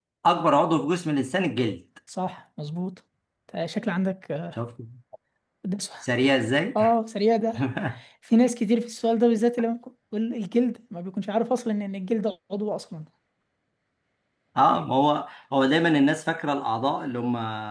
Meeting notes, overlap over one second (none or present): none